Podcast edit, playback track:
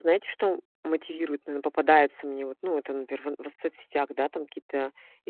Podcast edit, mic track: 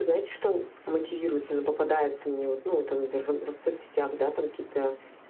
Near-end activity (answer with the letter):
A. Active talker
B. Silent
B